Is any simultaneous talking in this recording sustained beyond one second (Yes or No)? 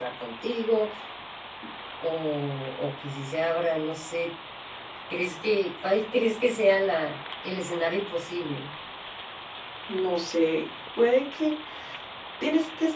No